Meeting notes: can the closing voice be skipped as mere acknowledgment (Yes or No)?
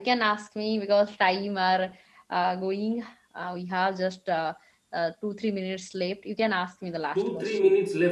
No